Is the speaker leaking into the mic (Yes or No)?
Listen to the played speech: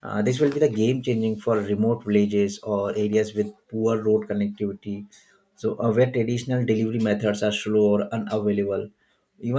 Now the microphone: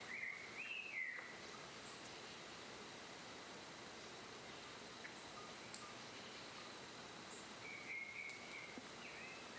No